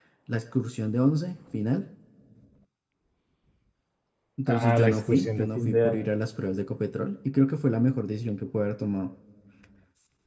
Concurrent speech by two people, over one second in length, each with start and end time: 4.5-6.1

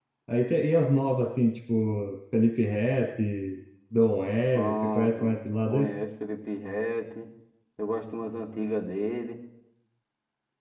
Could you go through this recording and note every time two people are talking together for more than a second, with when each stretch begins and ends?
4.5-5.9

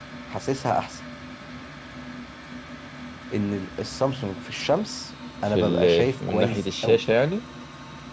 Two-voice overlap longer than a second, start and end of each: 5.5-7.0

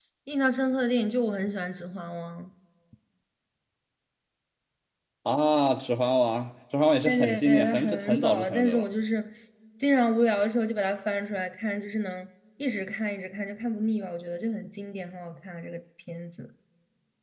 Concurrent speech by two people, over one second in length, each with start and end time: 7.0-8.8

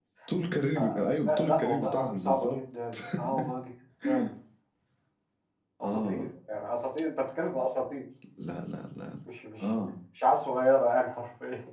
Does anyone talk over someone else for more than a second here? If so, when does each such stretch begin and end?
1.3-2.6

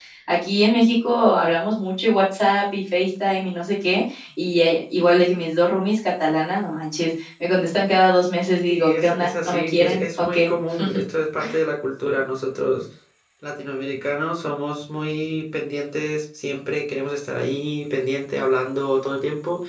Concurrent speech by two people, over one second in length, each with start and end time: 8.7-10.5

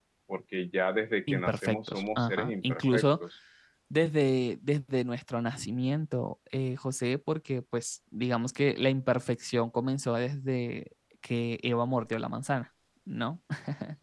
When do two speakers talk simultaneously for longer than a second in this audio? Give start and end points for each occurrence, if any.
1.3-3.0

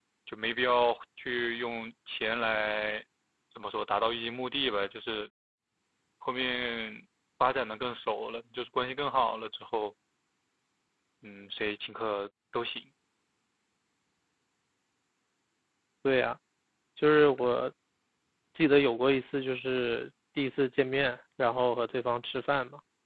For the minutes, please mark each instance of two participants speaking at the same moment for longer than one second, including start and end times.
none

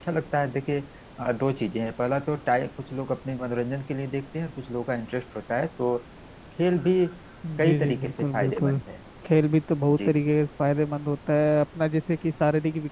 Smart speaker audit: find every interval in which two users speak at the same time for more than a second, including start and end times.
7.6-8.8

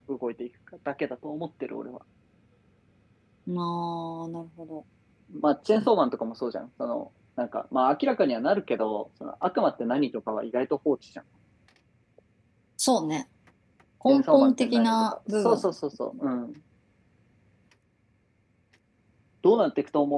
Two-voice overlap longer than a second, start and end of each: 14.1-15.7

